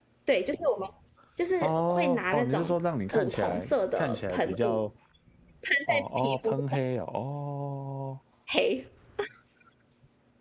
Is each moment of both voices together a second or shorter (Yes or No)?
No